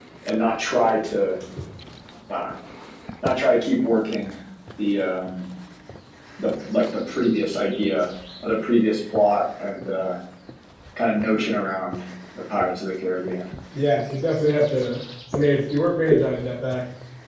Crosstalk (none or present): none